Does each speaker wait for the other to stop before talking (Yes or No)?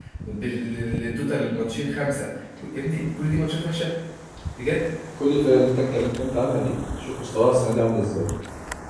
Yes